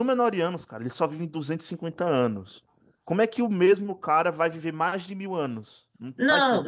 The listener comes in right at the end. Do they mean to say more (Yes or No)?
Yes